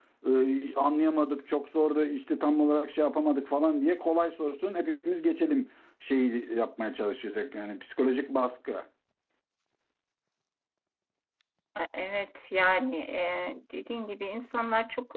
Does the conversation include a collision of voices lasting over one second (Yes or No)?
No